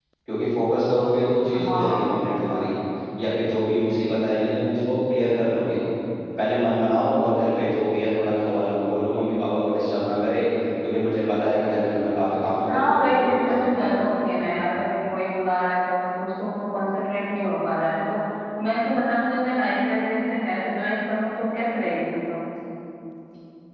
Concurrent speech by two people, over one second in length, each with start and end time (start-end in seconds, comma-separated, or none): 12.7-14.0